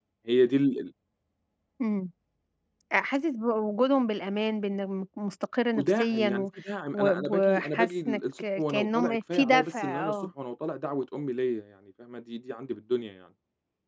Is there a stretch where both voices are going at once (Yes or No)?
Yes